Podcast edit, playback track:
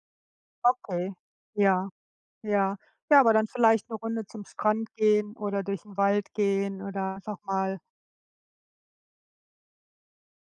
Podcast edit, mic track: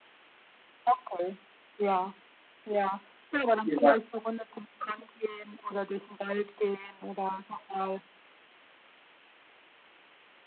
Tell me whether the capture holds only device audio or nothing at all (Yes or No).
No